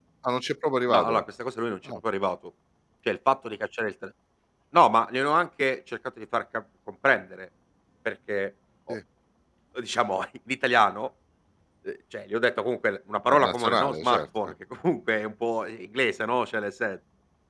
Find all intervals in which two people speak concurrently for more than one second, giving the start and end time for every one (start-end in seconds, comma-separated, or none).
13.3-14.5